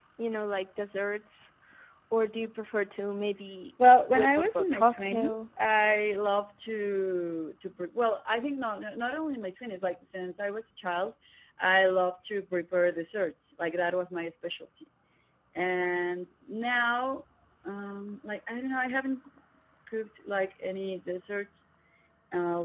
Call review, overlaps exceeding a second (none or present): present